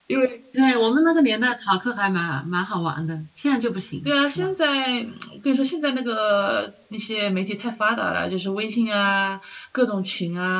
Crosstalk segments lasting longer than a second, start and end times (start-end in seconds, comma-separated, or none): none